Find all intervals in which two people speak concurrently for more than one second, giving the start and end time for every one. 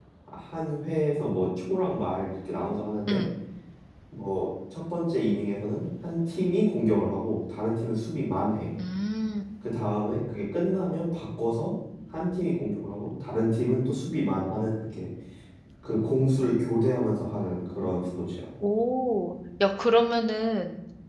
none

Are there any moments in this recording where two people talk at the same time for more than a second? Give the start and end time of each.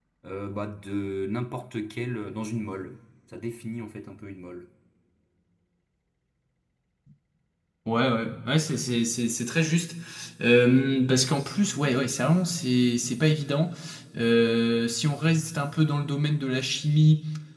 none

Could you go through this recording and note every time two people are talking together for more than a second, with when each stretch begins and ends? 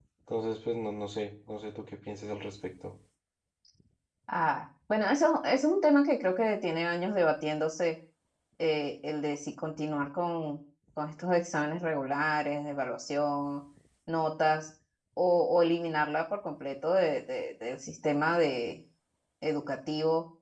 none

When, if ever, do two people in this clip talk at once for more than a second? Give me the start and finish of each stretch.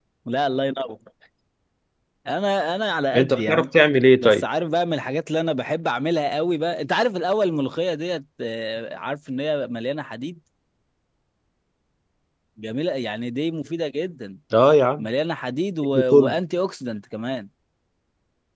none

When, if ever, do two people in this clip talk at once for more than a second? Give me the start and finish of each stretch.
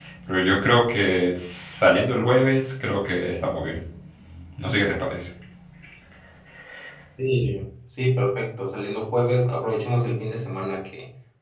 none

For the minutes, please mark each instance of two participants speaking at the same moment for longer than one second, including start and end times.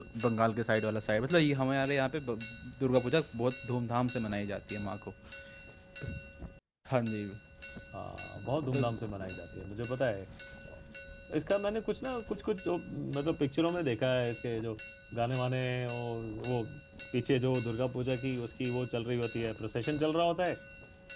none

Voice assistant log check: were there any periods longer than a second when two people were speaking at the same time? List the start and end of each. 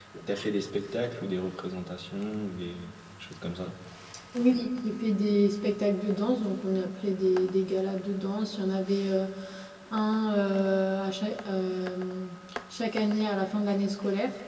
none

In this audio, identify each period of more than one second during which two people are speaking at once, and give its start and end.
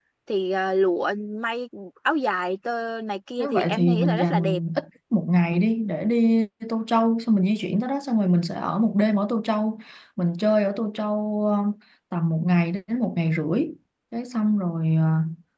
3.4-4.6

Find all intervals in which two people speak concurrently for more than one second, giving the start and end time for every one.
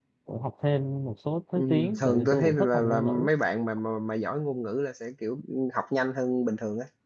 1.6-3.3

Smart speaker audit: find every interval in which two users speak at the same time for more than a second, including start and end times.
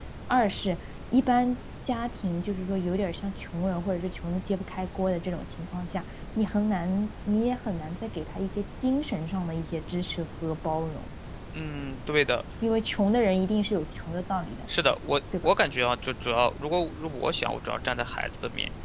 none

